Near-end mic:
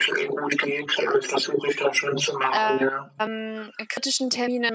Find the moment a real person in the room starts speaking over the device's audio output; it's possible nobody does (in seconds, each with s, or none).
2.5 s